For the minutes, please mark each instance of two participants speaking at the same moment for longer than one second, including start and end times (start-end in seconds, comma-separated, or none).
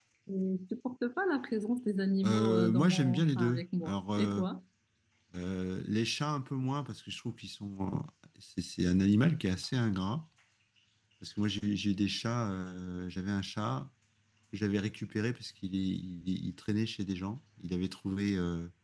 2.2-4.4